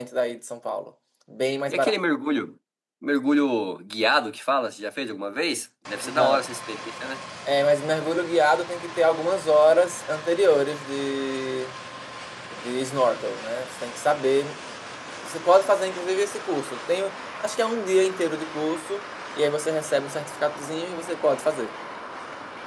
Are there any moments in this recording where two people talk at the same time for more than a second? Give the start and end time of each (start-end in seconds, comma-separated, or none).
none